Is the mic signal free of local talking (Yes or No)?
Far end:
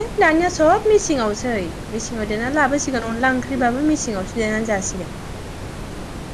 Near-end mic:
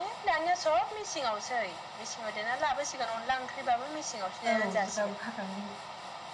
No